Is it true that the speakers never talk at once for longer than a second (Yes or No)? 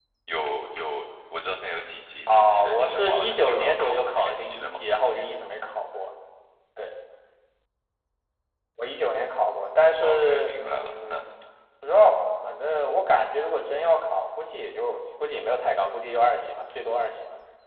No